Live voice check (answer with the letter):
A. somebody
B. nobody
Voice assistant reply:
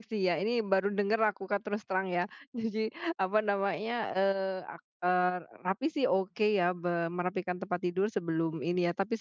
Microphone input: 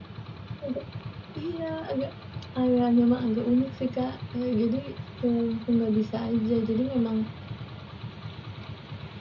A